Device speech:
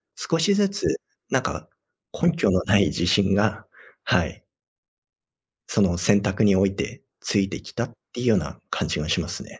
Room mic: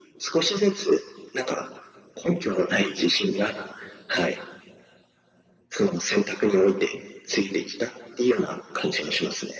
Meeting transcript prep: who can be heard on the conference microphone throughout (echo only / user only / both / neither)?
echo only